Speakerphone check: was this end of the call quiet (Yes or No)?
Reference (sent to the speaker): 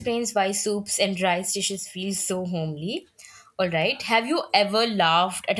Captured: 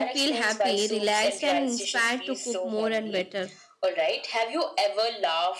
No